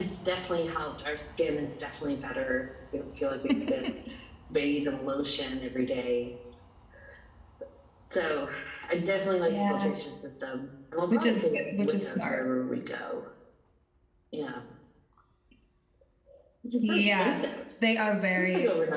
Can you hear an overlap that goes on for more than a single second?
Yes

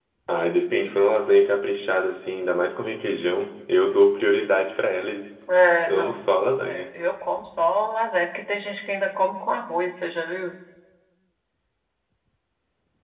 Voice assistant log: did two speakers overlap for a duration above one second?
No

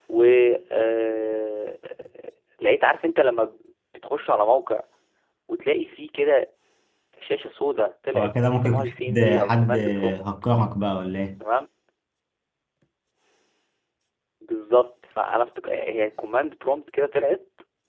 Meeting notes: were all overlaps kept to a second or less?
No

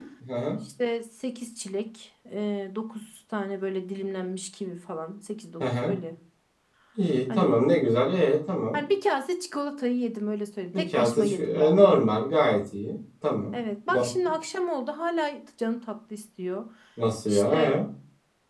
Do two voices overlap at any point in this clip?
Yes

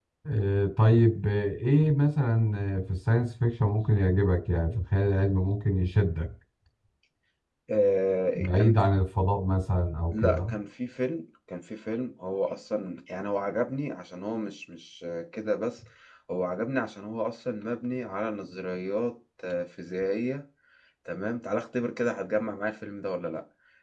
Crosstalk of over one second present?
No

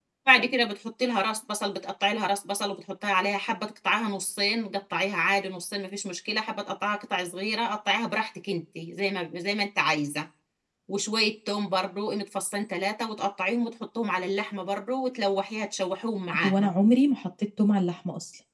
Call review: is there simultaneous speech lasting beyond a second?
No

